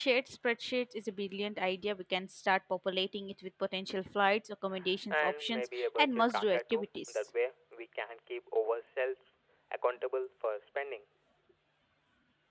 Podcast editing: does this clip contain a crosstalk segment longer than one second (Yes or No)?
Yes